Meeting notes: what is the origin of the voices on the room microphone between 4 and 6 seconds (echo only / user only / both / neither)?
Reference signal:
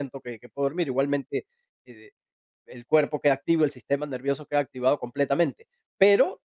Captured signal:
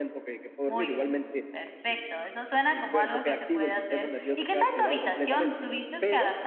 both